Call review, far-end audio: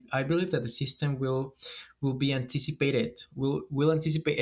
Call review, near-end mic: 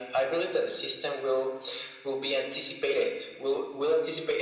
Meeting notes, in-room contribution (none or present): none